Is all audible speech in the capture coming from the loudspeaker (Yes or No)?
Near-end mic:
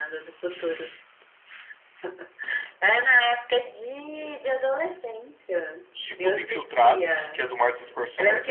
No